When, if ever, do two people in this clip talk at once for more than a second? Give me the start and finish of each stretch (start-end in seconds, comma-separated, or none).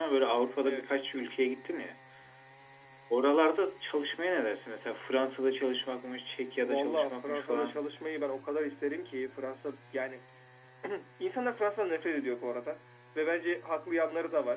6.6-7.8